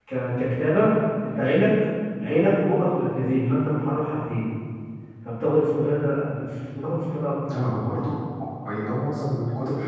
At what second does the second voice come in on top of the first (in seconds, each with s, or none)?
none